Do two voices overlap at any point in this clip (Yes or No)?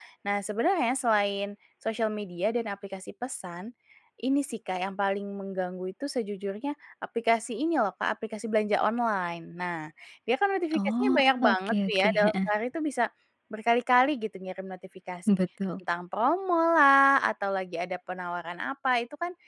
Yes